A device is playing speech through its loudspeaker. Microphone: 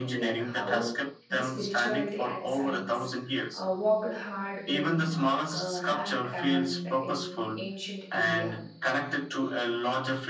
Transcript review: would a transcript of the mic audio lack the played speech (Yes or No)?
No